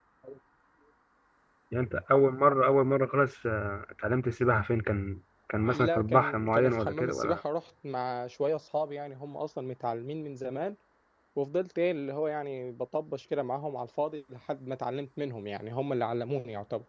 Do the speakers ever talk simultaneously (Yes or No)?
Yes